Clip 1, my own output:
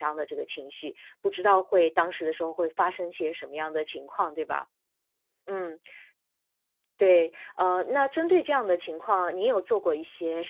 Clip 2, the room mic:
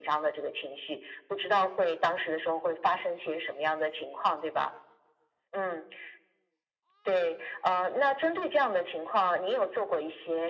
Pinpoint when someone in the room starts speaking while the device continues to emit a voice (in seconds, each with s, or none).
none